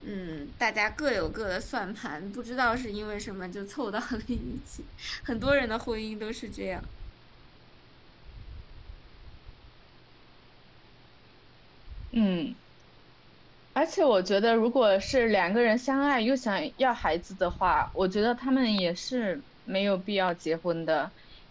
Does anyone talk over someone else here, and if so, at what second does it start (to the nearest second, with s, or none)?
none